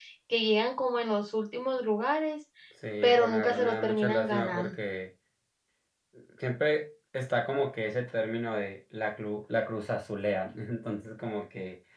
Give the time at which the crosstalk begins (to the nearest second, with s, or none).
3 s